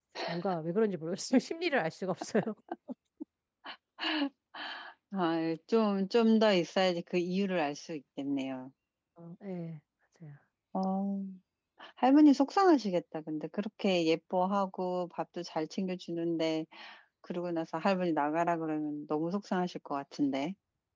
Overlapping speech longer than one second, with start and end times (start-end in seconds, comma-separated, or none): none